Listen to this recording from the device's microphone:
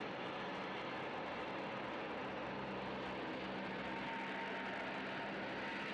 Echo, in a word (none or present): none